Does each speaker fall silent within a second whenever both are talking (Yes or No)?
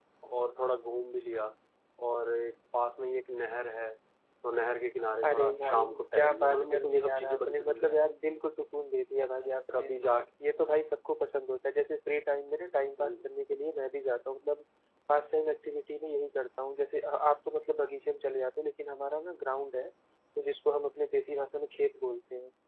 No